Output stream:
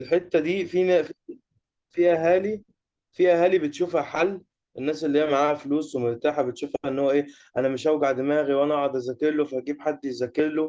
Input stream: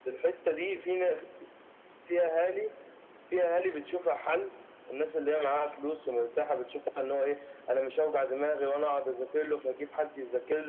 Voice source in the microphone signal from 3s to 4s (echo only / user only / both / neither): echo only